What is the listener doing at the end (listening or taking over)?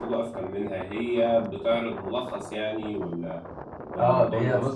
taking over